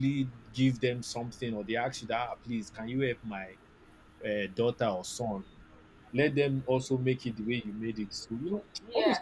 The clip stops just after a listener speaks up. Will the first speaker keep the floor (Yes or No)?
No